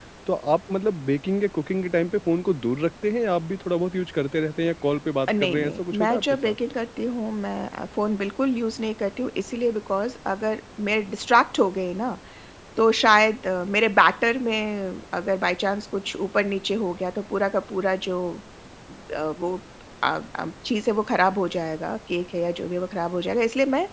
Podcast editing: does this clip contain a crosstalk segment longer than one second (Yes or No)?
Yes